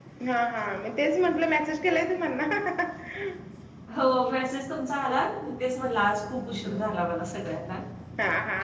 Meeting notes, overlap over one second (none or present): none